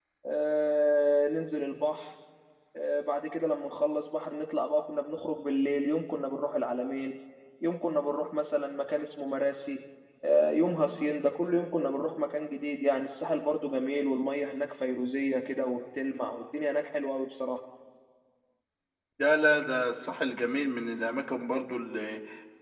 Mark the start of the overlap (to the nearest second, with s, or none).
none